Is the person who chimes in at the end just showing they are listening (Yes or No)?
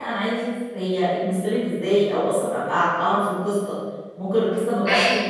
Yes